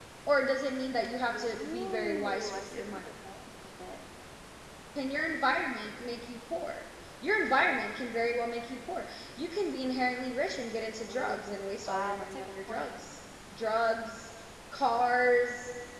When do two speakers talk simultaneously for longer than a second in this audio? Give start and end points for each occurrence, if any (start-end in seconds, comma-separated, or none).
1.4-3.0, 11.0-13.0